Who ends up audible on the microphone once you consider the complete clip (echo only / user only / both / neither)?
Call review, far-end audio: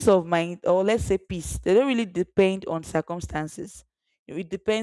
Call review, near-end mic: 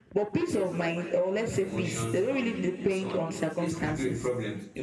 both